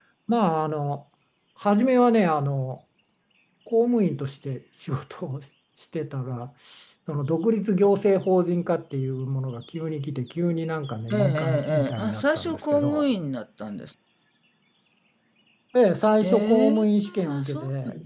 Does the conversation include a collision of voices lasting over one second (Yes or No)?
Yes